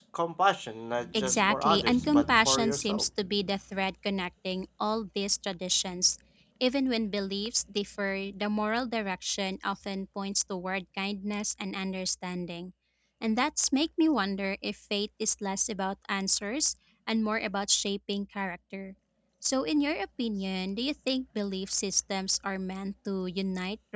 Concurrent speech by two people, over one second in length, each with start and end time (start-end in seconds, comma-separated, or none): 1.1-3.0